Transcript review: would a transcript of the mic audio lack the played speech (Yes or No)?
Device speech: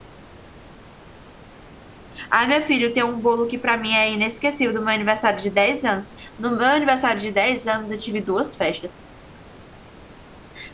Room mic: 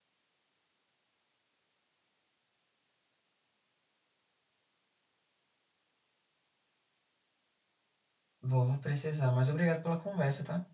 Yes